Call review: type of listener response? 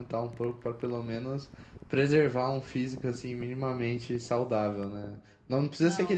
listening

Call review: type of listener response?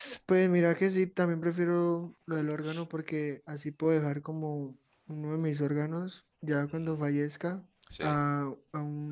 listening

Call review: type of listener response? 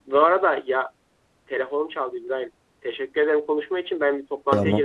listening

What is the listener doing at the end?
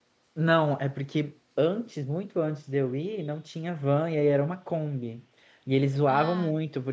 listening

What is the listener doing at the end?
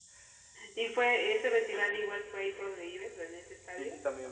taking over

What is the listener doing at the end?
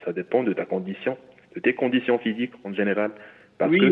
listening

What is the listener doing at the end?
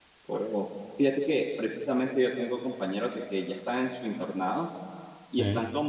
listening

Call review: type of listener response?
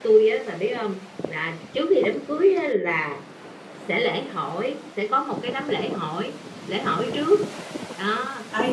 taking over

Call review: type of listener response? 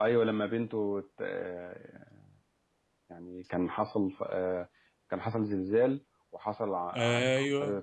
listening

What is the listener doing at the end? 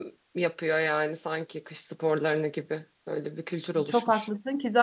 taking over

